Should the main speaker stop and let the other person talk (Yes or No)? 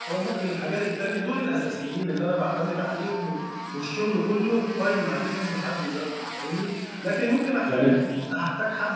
No